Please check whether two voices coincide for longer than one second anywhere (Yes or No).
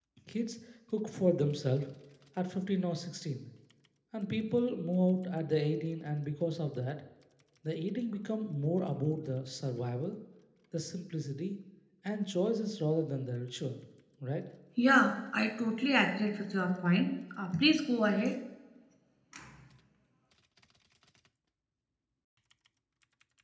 No